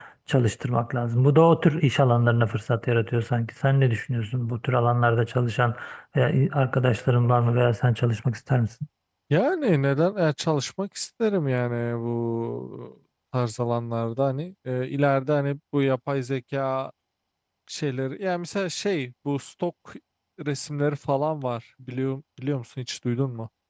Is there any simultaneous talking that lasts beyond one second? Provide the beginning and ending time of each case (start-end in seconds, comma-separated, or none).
none